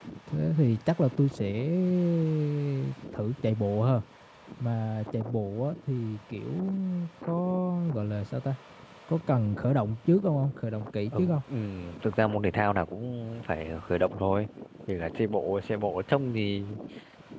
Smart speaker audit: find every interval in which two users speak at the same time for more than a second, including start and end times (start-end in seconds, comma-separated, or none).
none